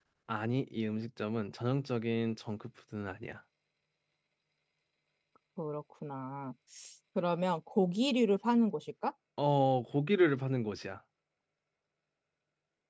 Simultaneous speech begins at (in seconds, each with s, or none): none